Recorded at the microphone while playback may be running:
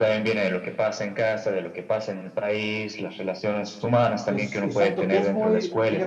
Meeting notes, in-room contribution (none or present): present